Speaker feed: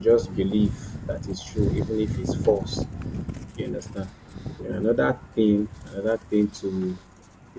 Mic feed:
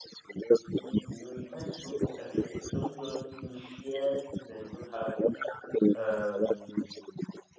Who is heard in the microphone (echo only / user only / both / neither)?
both